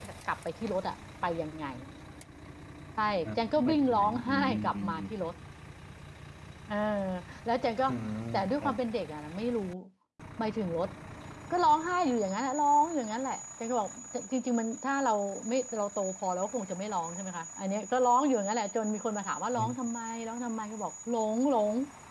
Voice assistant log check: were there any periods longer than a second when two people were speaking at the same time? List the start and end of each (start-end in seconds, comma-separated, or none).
3.2-5.0